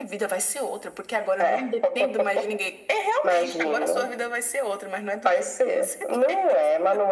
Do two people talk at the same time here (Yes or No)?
Yes